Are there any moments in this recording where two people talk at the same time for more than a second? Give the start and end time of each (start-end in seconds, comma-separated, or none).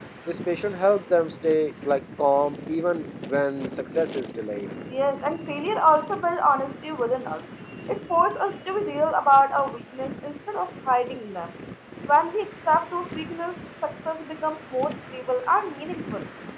none